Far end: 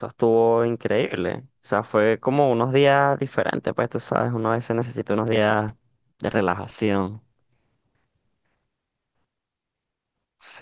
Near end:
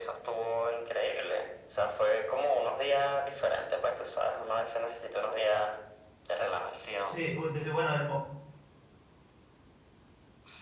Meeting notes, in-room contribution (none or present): present